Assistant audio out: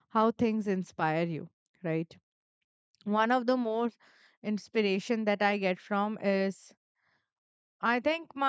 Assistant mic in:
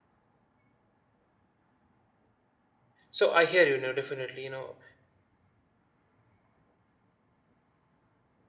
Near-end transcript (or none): So I hear you now. Definitely, you know,